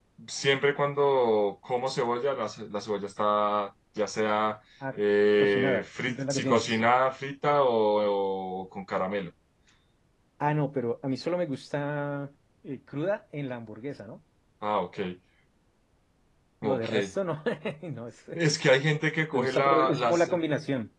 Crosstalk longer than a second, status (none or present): present